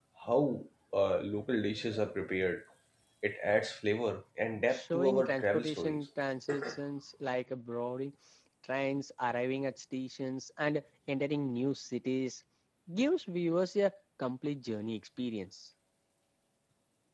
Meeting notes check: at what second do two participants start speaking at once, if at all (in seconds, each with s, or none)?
4.7 s